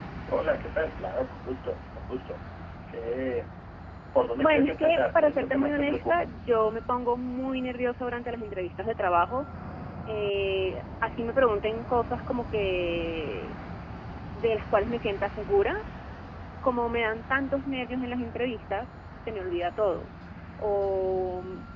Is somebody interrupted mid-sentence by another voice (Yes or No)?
Yes